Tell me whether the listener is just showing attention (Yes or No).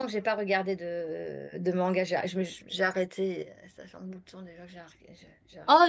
No